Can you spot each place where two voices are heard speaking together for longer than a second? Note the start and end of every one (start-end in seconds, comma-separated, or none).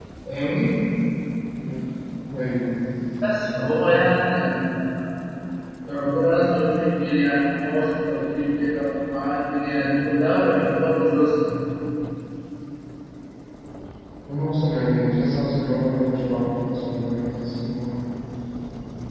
none